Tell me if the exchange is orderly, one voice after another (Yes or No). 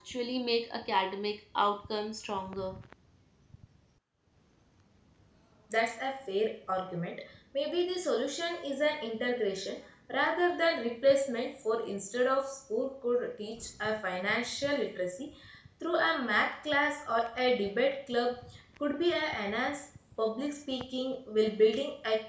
Yes